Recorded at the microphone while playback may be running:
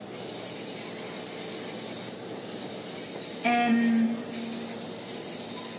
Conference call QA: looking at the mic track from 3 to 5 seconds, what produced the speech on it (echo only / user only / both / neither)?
user only